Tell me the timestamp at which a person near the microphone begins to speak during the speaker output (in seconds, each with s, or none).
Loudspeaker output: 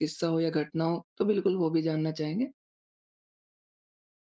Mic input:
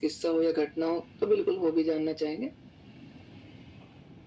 none